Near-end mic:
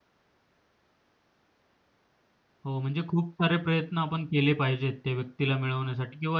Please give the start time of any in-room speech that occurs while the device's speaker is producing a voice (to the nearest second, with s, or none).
3 s